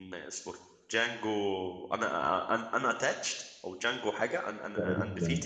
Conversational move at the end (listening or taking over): taking over